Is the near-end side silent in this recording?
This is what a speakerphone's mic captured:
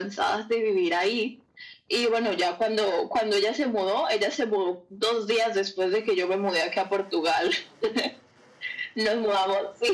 Yes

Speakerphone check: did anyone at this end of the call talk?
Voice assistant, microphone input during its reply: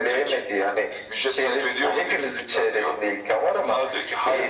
No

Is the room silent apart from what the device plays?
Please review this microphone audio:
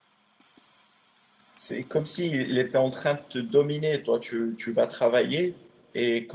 No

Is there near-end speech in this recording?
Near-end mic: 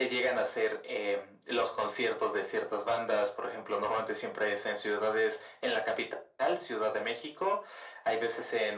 No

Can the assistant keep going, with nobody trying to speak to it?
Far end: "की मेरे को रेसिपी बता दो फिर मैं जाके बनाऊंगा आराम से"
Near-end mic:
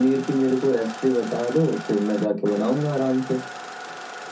Yes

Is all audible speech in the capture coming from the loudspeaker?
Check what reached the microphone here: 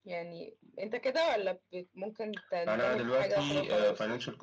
Yes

